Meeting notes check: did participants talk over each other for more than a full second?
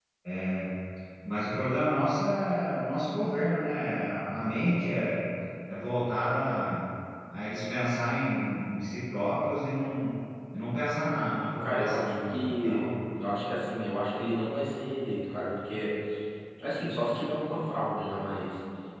Yes, from 11.6 s

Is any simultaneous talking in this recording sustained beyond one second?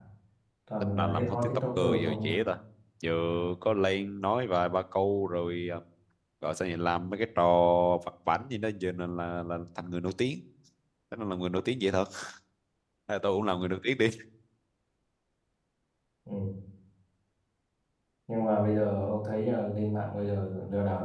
Yes, from 0.8 s

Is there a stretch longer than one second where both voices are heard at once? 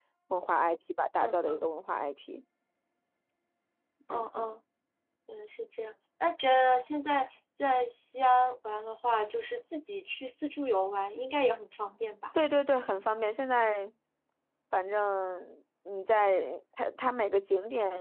No

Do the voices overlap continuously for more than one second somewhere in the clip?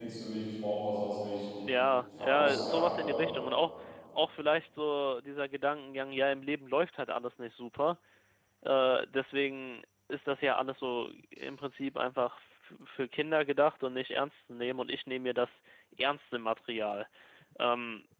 Yes, from 2.1 s

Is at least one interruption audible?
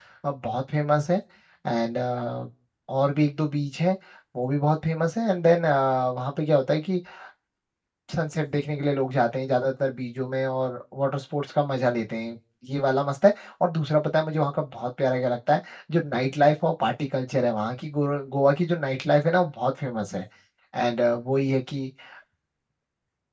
No

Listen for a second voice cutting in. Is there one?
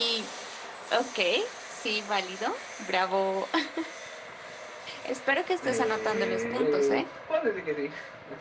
Yes, from 5.6 s

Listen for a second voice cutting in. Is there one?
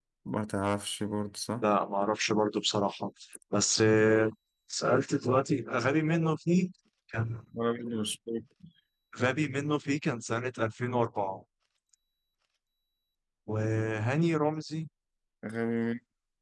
No

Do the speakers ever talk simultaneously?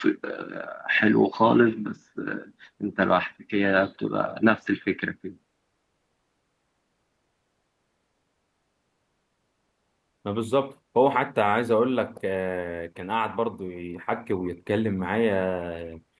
No

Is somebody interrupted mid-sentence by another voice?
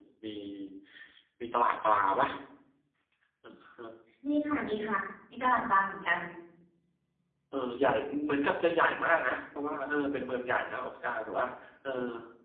No

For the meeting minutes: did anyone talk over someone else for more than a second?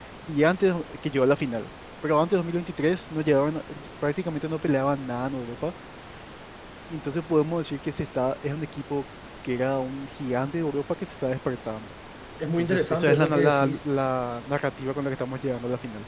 Yes, from 12.6 s

